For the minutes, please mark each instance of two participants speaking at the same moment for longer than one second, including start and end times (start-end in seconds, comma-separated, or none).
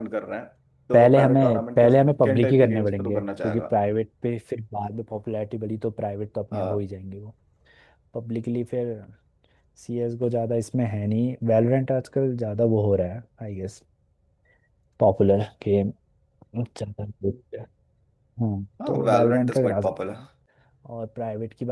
0.9-3.6, 18.9-20.2